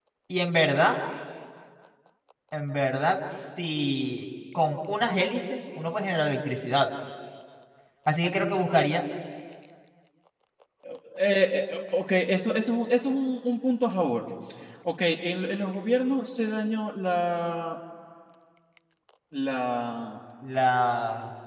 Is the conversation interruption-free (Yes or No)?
Yes